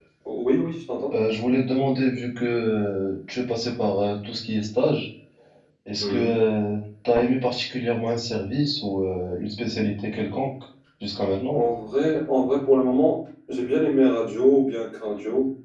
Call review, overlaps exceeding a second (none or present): none